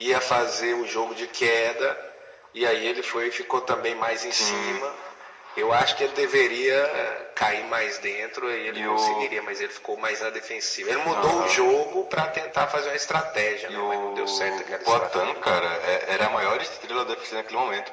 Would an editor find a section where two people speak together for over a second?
Yes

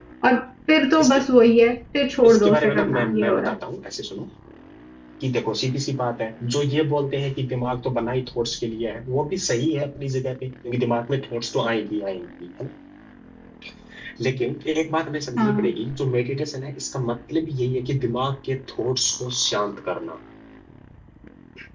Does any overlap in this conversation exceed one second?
Yes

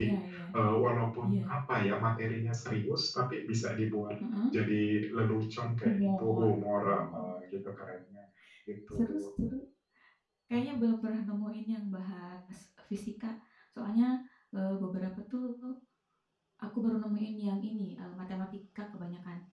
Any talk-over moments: Yes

